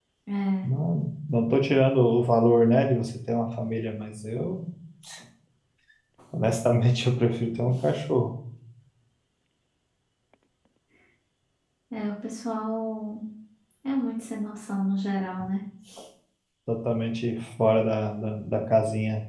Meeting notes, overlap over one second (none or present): none